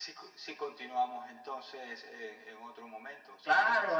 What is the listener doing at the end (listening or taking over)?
taking over